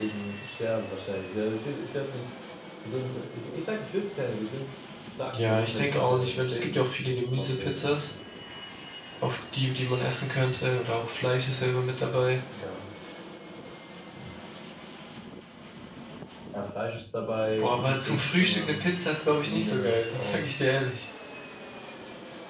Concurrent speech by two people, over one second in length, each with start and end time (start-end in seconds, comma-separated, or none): 5.3-7.9, 17.6-20.4